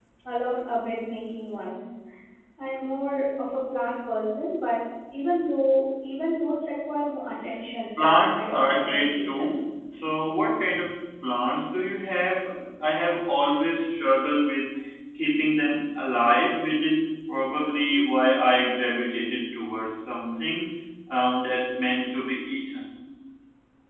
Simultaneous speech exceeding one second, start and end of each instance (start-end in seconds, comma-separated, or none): 8.0-9.5